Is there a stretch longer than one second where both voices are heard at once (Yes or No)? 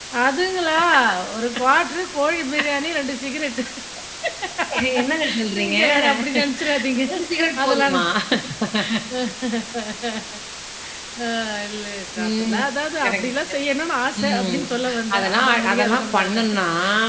Yes